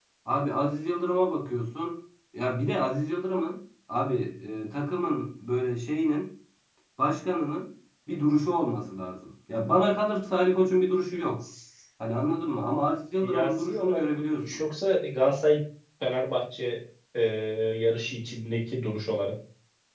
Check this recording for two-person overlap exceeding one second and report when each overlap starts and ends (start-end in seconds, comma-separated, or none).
13.2-14.6